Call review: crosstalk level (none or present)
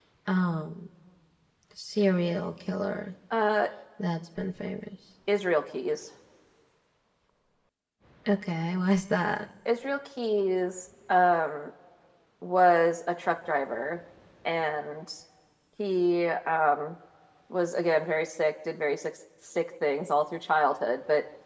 none